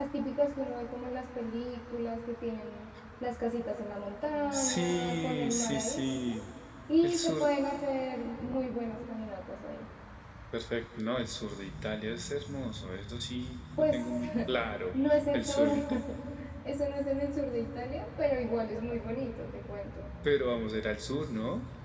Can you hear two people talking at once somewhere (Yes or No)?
Yes